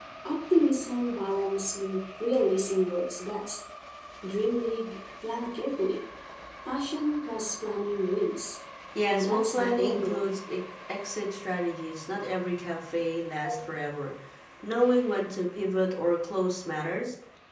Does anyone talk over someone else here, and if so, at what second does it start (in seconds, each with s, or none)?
9.1 s